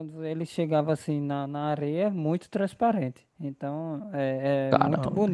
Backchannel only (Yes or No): Yes